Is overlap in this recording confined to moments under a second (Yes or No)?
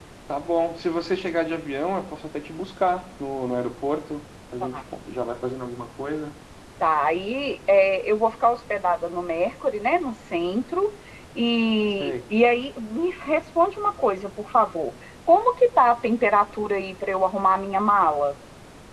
Yes